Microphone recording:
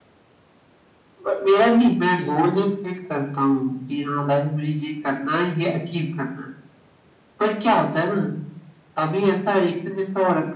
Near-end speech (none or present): none